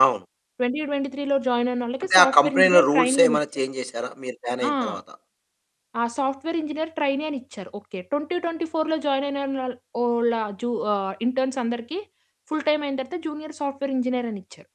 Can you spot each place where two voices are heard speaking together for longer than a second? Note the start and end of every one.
2.0-3.4

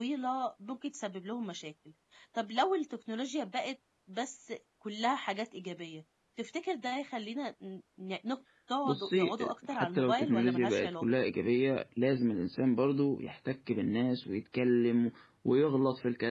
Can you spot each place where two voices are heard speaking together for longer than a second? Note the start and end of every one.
8.8-11.0

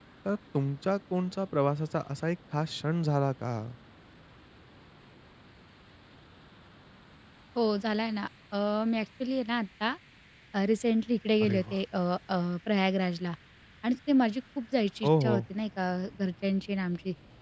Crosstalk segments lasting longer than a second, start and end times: none

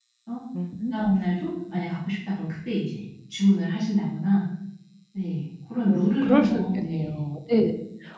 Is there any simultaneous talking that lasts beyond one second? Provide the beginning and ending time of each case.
5.9-7.2

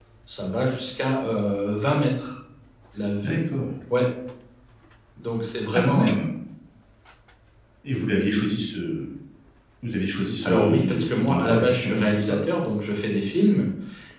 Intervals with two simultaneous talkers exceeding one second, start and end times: 10.4-12.4

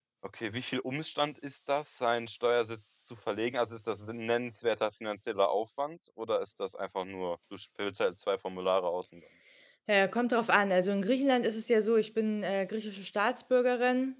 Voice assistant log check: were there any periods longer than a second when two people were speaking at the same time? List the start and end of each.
none

